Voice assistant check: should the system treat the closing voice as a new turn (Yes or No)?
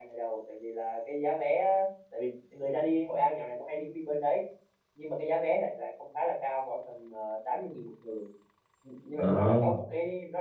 No